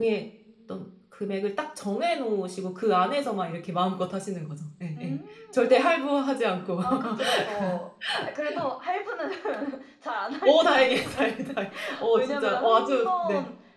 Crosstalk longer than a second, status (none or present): present